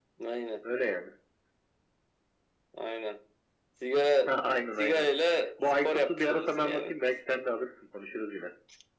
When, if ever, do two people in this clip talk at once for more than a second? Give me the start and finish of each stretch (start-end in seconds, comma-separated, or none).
5.6-6.9